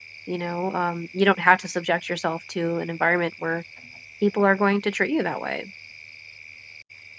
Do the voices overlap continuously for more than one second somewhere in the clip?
No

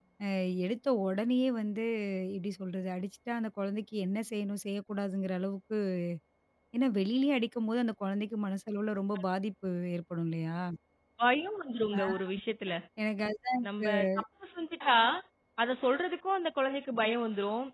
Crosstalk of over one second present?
No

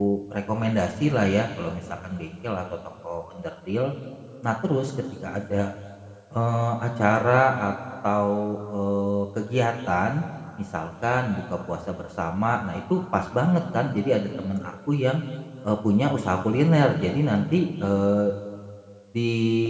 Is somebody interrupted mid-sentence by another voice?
No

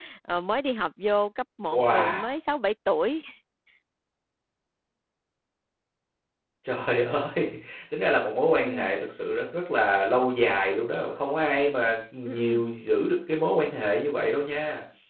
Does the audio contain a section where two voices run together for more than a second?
No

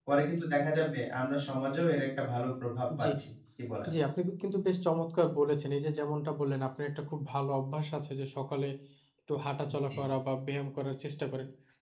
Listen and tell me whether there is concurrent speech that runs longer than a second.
No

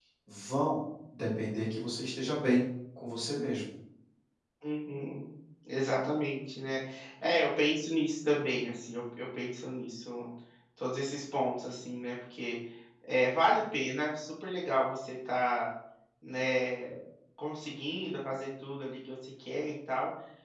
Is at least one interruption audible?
No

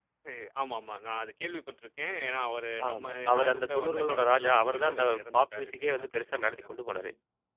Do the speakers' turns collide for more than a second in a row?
Yes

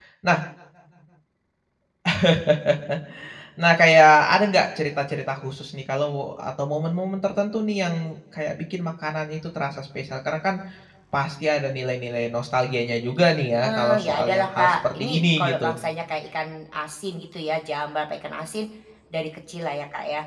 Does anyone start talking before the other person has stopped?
Yes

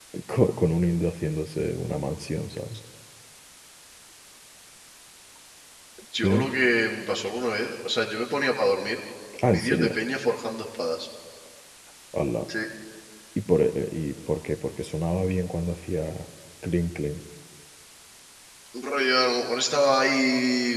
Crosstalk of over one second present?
No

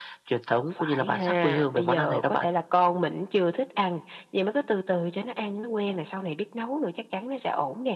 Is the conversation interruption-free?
No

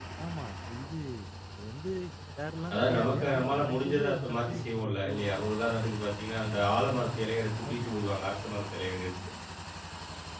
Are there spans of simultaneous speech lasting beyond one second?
Yes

